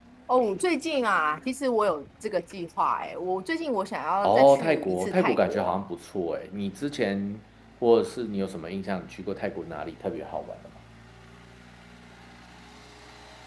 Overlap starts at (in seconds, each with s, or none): 4.2 s